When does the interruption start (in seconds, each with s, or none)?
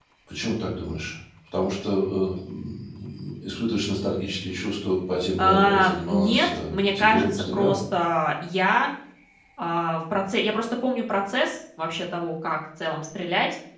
5.4 s